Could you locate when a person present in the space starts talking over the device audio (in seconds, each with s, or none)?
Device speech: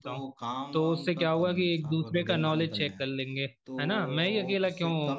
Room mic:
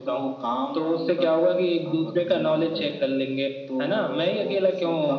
none